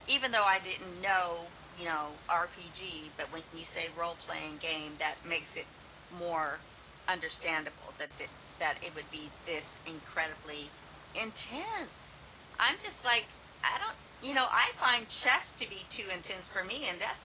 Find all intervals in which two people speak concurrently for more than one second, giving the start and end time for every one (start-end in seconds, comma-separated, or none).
none